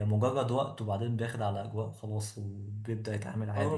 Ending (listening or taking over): taking over